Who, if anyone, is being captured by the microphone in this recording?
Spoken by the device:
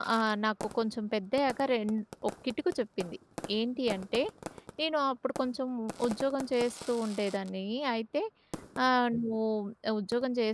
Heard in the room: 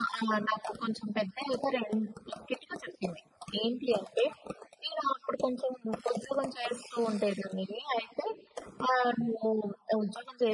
echo only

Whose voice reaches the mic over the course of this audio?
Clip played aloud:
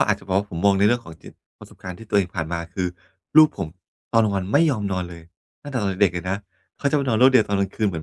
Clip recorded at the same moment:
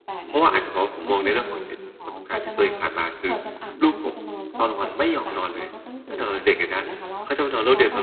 both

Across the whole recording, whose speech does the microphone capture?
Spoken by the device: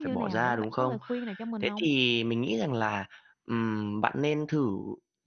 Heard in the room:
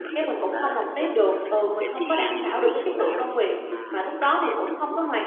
both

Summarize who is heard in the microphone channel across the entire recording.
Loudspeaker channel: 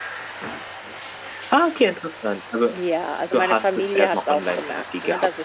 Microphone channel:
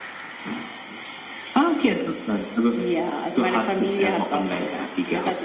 echo only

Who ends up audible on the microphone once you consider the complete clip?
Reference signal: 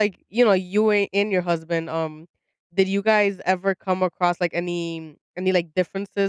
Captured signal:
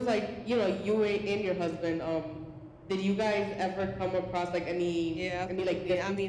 both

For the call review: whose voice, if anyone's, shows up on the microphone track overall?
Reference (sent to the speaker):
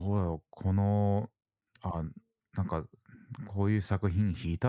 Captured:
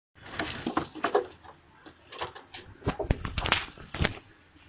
neither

